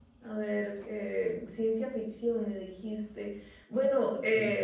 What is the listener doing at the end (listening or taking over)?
listening